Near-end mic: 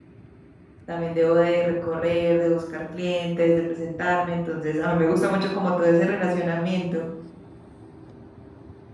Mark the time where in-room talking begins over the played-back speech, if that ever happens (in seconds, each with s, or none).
0.8 s